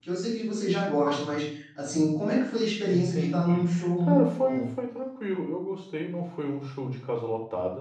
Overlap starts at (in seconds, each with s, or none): 2.9 s